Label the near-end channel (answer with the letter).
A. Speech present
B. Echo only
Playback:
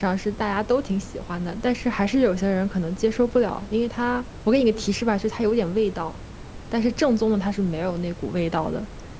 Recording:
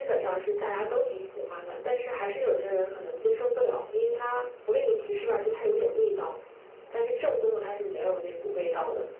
B